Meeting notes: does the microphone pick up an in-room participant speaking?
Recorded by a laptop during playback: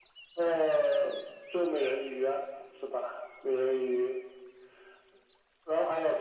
No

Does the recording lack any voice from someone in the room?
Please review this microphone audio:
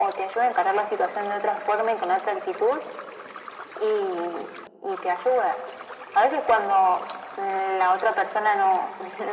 Yes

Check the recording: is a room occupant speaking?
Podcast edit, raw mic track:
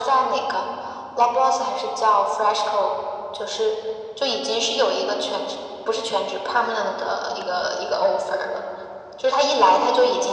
No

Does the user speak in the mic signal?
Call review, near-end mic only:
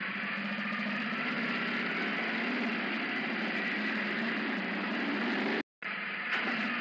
No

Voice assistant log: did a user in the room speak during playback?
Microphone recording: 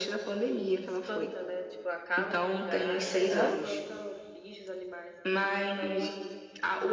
Yes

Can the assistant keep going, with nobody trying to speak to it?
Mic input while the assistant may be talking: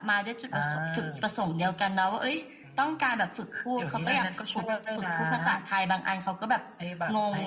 Yes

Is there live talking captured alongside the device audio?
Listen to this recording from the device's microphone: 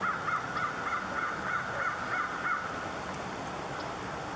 No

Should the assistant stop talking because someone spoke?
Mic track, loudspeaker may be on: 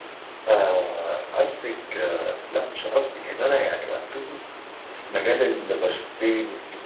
Yes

